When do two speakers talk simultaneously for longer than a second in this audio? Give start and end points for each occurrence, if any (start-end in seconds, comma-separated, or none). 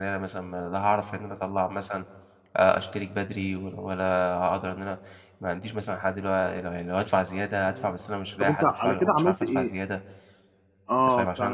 8.4-9.7